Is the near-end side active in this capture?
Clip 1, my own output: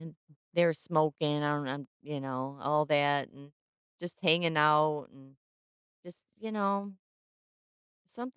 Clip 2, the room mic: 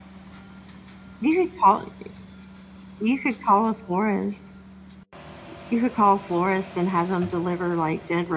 Yes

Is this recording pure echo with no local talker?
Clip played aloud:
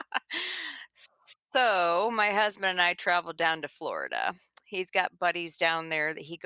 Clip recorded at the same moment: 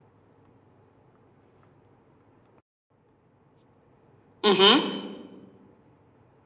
No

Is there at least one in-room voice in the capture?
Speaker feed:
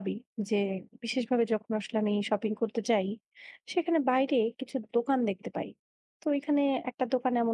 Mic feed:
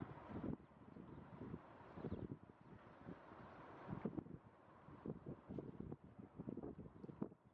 No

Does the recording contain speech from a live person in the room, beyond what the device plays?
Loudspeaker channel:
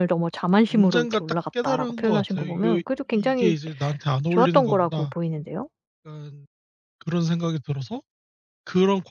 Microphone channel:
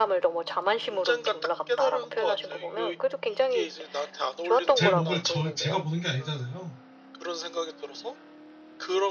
Yes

